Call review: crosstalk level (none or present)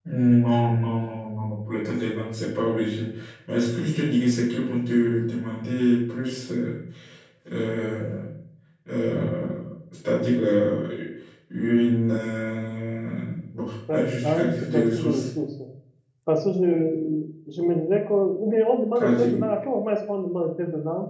present